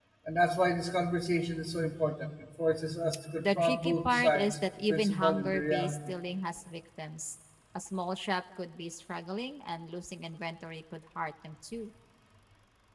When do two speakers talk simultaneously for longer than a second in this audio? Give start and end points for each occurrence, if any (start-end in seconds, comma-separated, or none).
3.4-6.0